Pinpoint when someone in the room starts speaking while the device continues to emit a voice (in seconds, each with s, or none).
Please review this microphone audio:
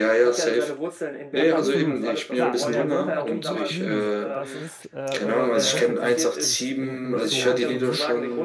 1.3 s